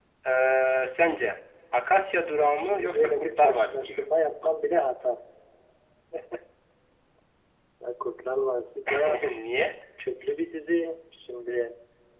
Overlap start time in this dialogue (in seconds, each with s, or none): 2.4 s